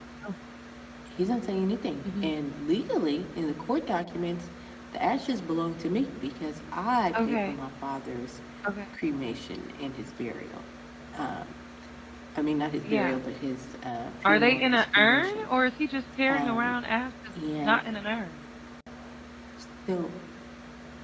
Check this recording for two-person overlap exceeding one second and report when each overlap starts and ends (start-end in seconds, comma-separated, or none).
14.2-15.5